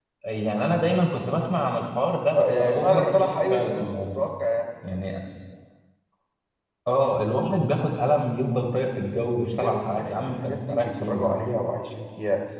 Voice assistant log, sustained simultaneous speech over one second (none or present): present